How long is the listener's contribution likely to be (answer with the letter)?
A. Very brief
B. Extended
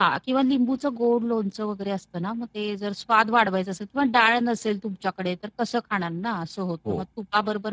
A